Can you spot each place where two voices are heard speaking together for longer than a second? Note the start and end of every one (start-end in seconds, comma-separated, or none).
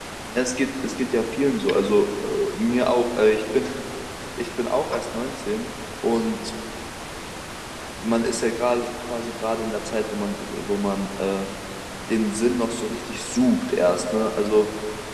none